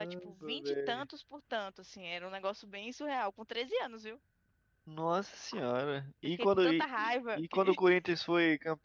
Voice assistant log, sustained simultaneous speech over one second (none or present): present